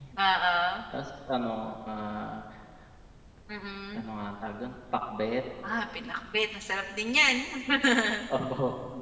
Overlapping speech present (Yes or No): No